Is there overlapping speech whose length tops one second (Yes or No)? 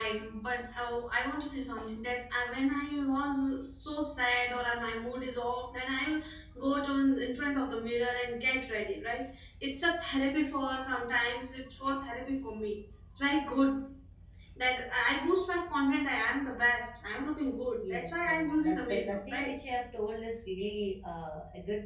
Yes